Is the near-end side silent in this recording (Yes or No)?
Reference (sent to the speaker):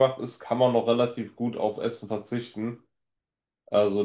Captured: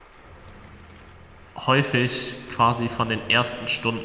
No